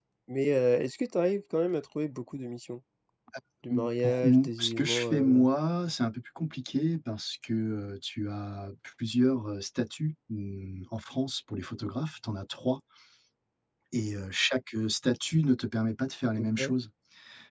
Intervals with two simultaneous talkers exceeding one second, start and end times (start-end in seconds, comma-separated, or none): 3.7-5.4